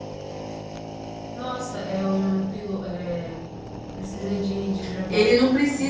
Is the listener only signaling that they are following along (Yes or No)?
No